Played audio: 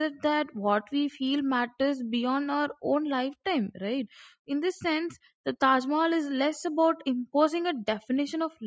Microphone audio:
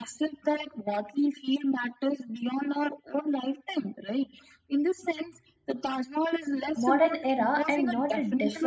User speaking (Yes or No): Yes